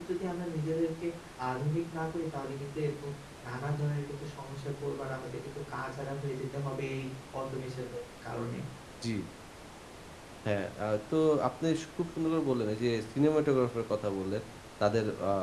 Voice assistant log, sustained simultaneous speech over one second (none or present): none